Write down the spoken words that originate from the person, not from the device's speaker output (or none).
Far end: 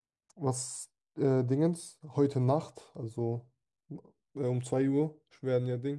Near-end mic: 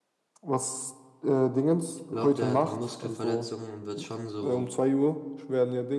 Ich glaube, der hat eine Muskelverletzung und wird schon so